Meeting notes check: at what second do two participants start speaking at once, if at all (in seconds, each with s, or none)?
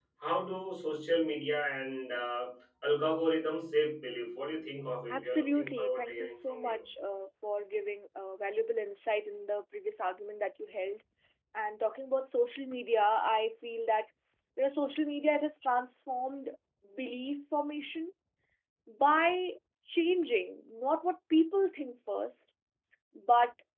5.1 s